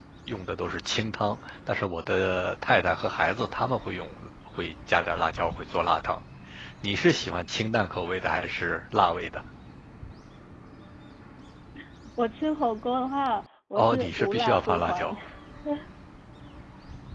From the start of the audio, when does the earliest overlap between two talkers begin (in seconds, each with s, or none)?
13.8 s